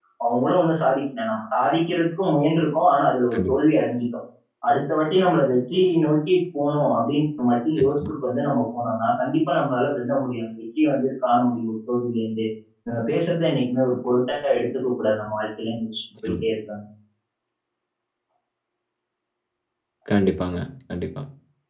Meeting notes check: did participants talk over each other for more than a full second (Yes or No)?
No